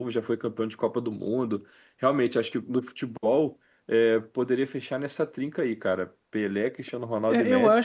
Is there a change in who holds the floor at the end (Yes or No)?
Yes